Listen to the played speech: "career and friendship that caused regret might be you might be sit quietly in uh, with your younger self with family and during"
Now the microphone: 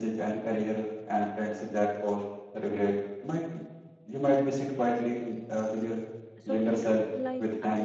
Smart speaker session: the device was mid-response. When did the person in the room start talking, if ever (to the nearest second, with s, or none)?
6 s